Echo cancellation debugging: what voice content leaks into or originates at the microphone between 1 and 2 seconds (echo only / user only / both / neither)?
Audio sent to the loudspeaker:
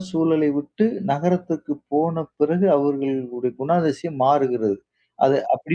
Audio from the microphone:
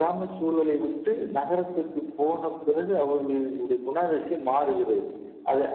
echo only